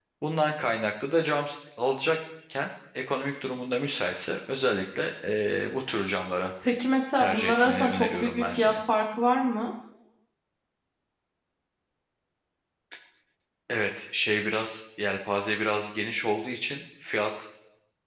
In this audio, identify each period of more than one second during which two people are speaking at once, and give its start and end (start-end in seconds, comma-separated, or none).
7.2-8.8